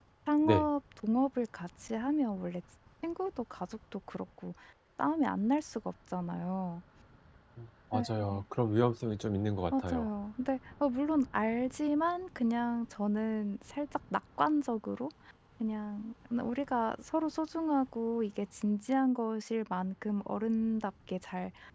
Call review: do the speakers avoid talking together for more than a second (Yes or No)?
Yes